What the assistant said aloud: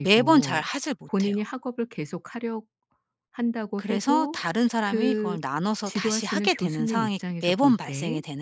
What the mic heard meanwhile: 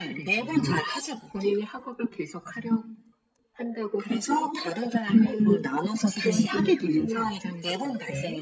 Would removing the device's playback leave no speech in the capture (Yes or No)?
No